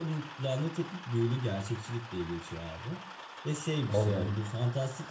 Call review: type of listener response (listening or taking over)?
listening